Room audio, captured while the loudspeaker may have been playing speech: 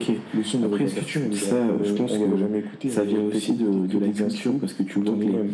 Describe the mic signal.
echo only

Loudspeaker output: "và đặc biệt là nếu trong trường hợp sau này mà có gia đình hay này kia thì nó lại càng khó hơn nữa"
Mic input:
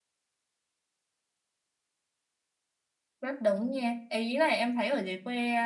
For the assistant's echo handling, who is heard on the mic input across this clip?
user only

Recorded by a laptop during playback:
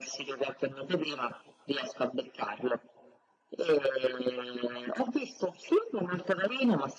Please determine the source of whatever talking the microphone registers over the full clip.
echo only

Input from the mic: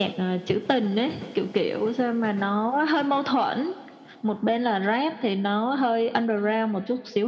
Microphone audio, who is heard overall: echo only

